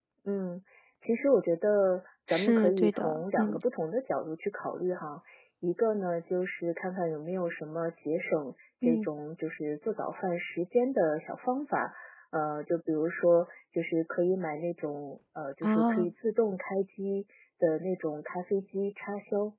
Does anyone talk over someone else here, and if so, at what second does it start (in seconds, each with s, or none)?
2.3 s